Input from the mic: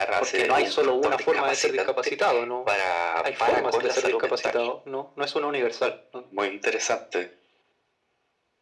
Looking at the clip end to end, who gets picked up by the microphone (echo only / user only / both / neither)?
echo only